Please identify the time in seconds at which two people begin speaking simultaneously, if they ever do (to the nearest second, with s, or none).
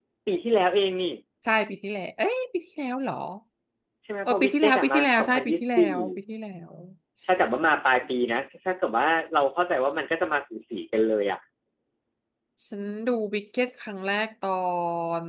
4 s